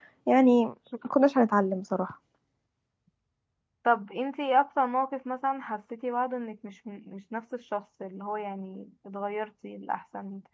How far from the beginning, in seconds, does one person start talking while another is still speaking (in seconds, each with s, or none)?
none